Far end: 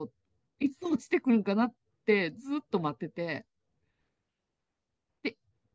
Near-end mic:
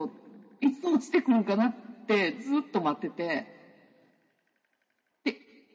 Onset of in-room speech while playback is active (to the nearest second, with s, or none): none